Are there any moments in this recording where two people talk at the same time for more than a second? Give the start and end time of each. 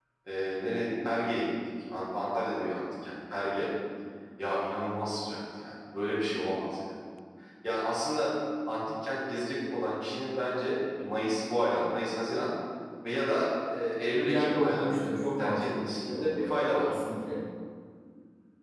14.1-16.9

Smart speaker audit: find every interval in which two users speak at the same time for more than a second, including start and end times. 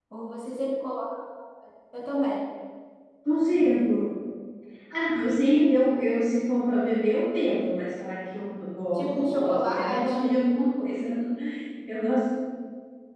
9.0-10.4

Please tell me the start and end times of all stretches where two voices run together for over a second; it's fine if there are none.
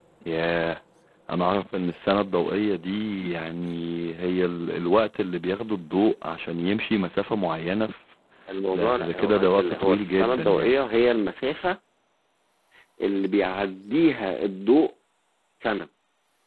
8.7-10.8

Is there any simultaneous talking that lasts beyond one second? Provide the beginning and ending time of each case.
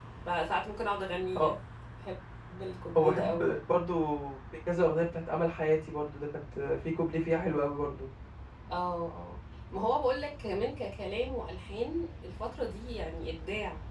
none

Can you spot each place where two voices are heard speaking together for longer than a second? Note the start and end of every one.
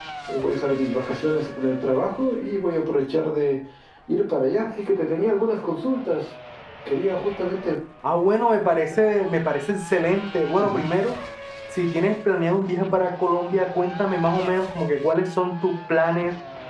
none

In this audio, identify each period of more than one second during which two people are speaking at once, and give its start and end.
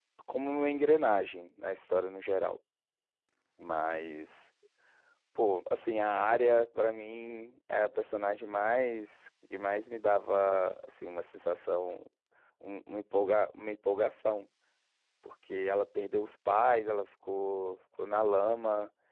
none

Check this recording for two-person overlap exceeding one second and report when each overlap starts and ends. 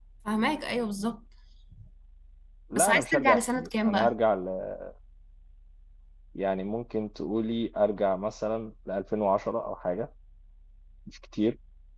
2.8-4.1

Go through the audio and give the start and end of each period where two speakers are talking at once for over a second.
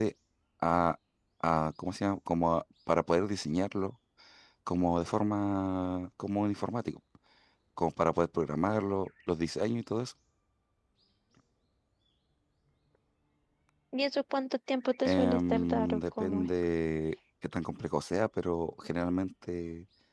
15.1-16.5

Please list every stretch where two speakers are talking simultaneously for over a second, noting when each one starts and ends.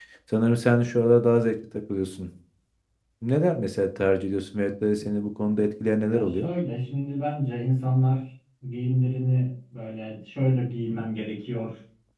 none

